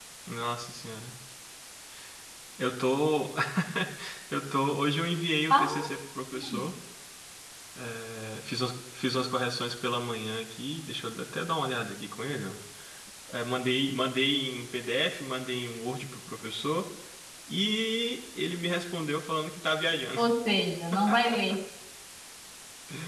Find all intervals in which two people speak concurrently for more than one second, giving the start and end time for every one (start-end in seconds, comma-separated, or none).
none